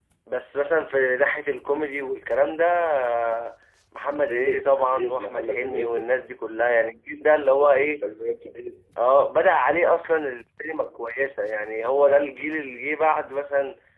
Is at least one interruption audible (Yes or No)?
Yes